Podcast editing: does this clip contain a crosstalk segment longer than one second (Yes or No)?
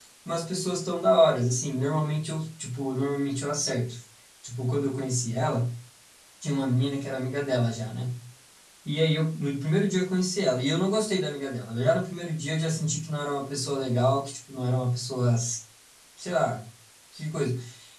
No